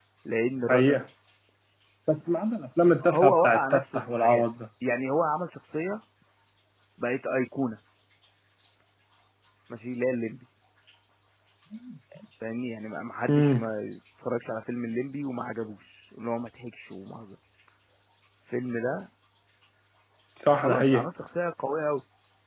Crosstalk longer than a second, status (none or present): present